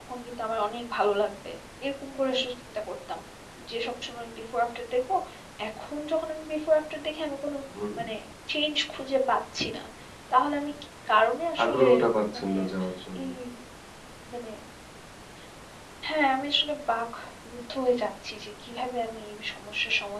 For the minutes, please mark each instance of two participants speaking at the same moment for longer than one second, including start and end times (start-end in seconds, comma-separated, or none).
none